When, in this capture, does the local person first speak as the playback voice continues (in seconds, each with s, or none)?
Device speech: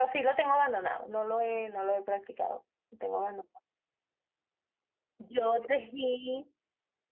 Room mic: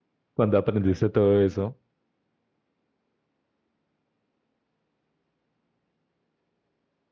0.3 s